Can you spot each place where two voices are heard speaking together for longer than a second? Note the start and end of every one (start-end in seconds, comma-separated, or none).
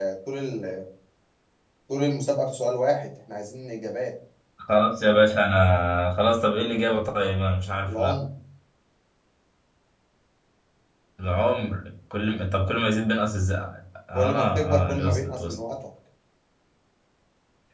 14.1-15.6